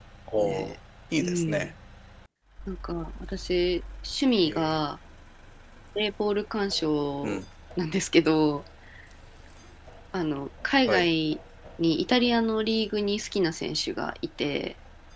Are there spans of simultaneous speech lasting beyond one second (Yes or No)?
No